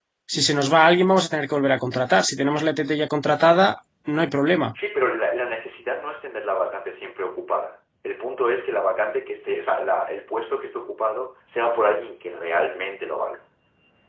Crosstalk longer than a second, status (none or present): none